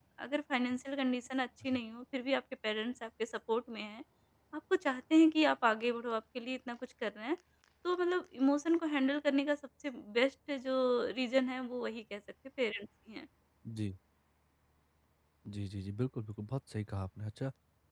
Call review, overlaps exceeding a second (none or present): none